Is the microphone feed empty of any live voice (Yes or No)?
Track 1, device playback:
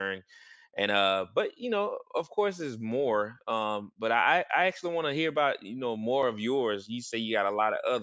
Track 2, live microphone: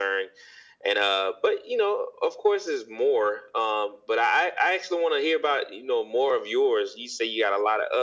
Yes